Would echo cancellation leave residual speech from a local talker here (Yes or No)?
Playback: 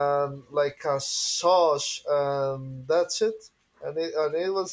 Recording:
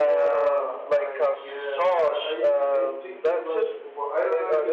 Yes